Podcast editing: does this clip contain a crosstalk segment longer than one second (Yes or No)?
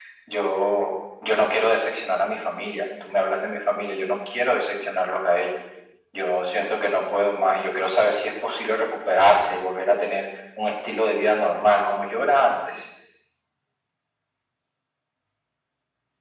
No